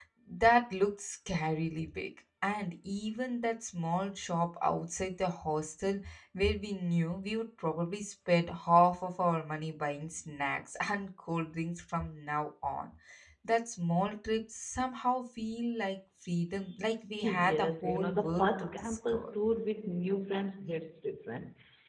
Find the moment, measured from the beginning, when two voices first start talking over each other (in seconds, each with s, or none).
17.2 s